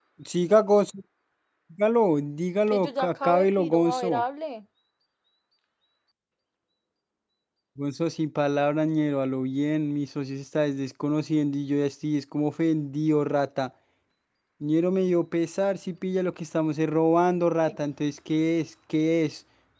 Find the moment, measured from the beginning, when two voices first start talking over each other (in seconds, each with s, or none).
2.7 s